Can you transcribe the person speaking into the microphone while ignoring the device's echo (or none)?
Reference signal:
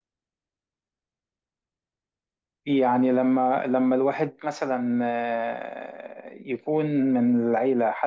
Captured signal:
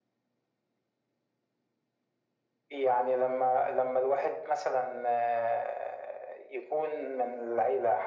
none